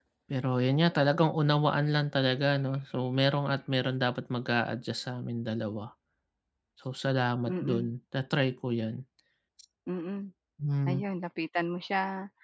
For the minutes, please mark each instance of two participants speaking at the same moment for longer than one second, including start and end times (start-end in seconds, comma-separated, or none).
none